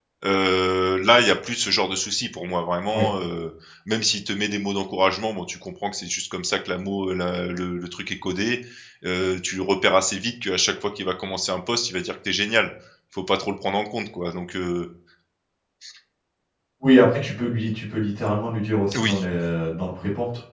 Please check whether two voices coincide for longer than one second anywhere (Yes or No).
No